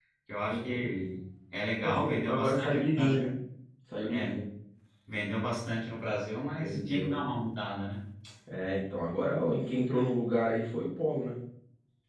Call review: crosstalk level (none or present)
present